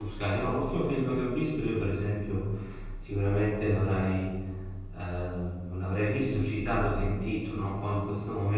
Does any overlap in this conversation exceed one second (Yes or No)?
No